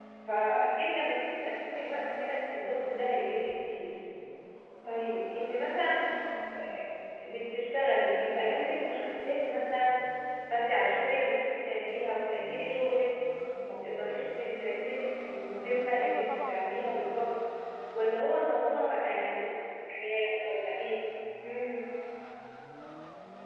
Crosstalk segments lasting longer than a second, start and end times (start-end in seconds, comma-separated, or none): 16.0-17.3